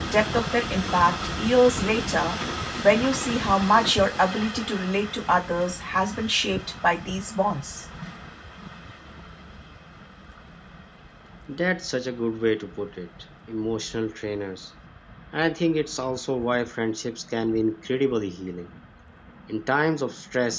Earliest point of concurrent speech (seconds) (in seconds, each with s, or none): none